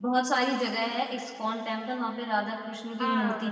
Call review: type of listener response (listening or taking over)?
taking over